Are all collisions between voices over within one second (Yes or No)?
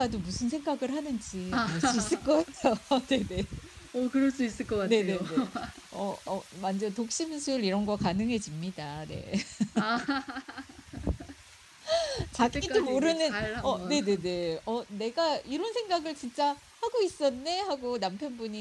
No